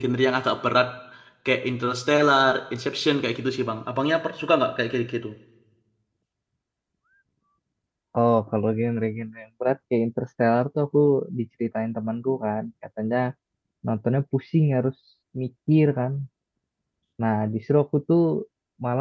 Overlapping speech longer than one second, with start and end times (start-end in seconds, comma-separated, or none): none